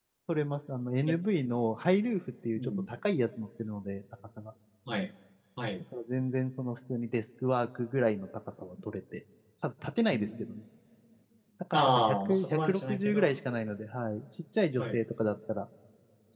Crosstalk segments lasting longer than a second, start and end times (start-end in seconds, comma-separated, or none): 11.7-13.4